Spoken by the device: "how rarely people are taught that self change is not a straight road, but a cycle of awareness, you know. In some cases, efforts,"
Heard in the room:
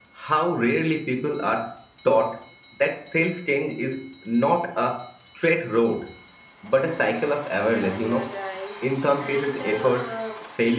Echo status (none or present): present